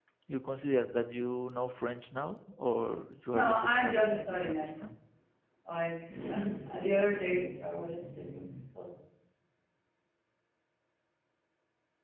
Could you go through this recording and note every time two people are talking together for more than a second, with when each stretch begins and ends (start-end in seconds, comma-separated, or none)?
3.3-4.7